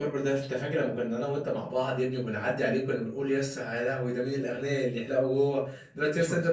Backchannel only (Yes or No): Yes